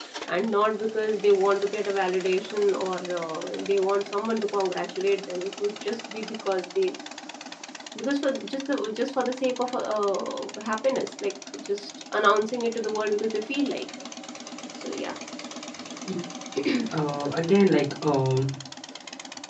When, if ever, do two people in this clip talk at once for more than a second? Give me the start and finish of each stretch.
none

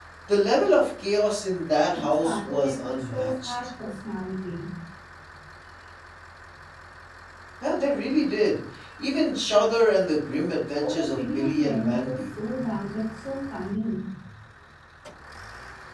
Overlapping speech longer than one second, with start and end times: 1.9-3.5, 10.8-12.3

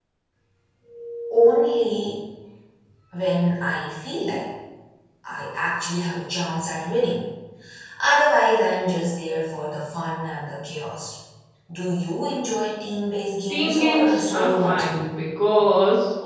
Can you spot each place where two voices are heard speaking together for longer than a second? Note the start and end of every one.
13.5-15.0

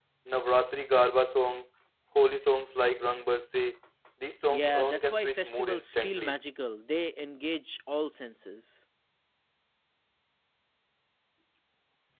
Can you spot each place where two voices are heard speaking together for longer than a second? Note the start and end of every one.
4.5-6.3

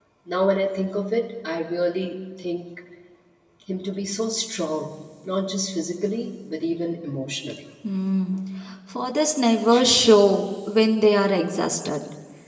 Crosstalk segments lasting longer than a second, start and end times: none

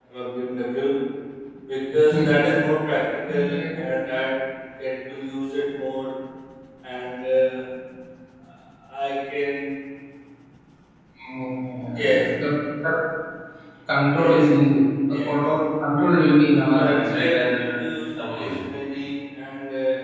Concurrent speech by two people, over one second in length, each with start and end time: 16.5-17.8

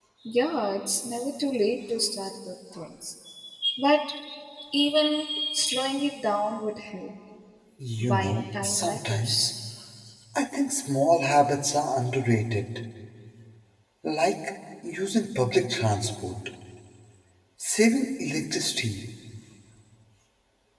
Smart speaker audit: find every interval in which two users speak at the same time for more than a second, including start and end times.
8.1-9.5

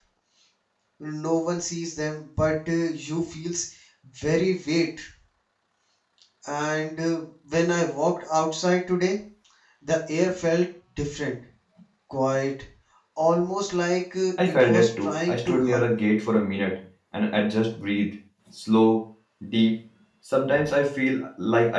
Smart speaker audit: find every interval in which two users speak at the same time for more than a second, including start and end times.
14.5-16.1

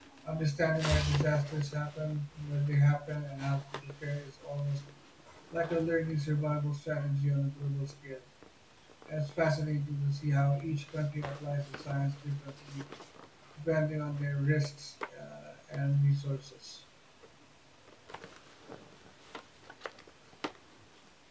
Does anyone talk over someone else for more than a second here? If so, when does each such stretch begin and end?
none

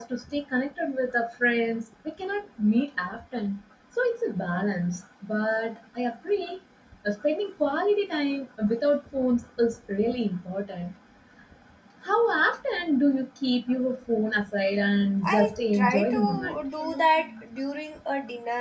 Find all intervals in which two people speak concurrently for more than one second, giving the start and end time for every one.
15.2-16.6

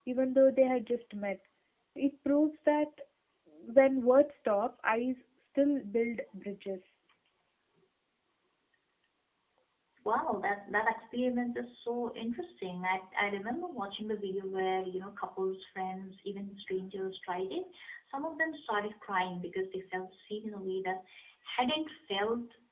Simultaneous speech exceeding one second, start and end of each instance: none

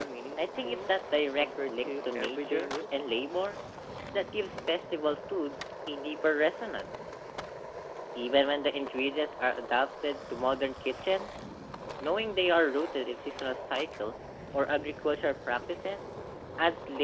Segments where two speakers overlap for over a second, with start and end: 1.4-3.1

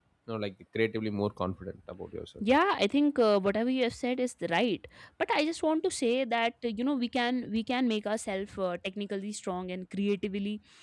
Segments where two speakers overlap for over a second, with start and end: none

